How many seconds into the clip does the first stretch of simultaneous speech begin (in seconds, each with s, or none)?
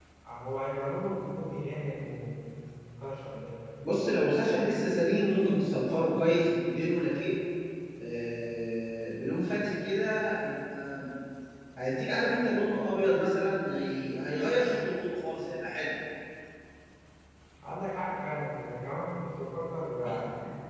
none